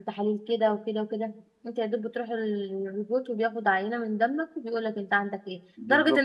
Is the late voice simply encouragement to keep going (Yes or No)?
Yes